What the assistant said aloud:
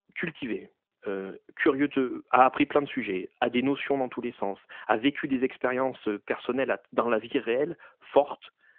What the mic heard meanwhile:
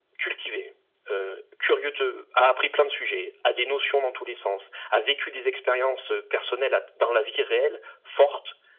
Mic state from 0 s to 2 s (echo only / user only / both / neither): echo only